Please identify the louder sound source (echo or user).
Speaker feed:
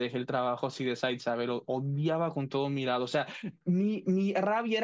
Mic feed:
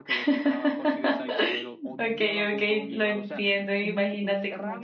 user